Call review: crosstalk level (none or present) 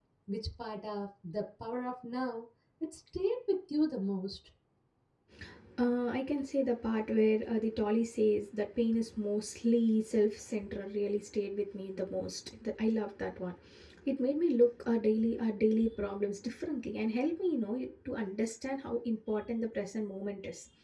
none